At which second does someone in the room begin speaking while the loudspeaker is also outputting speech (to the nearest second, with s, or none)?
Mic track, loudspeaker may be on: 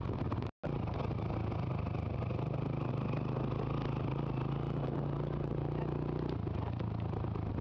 none